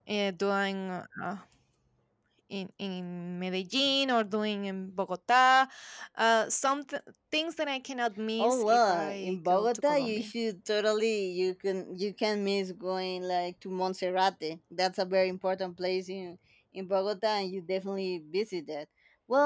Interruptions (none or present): present